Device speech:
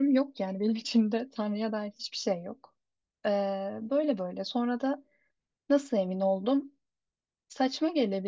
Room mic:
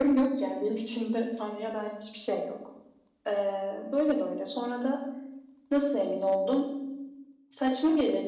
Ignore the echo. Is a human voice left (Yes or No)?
No